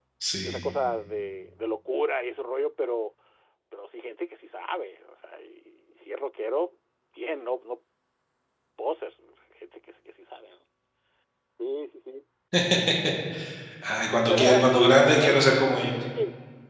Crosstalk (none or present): present